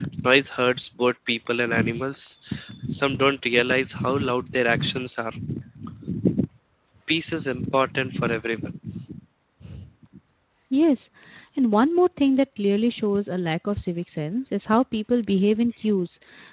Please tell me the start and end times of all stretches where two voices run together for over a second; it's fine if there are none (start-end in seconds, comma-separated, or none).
none